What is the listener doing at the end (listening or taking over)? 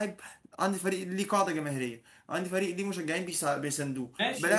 taking over